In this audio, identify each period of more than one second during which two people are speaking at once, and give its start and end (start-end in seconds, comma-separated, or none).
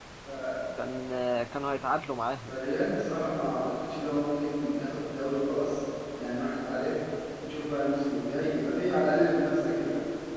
none